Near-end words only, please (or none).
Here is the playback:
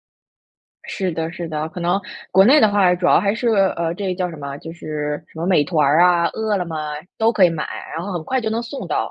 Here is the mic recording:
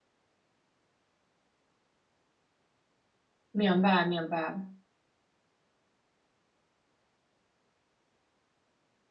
明白明白。